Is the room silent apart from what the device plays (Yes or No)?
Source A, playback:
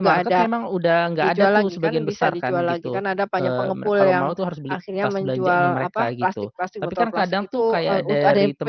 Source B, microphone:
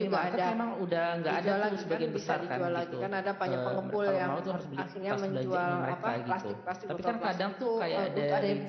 Yes